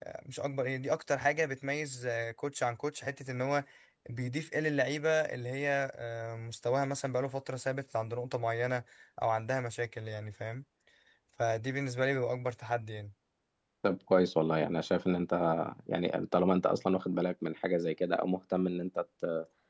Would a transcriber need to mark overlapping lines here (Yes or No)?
No